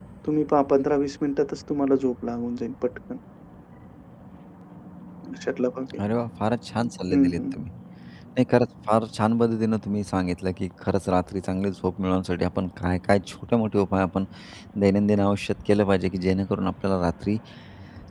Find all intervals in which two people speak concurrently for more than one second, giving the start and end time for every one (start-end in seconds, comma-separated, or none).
none